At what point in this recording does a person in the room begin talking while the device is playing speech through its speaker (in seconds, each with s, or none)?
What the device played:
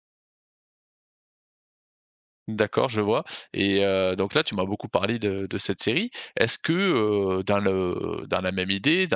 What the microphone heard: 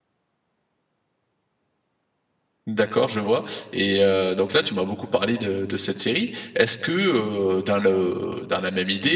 none